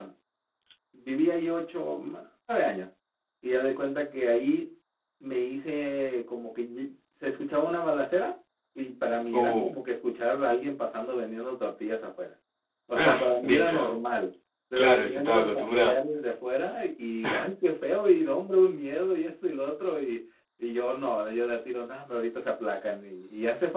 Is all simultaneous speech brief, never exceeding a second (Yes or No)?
No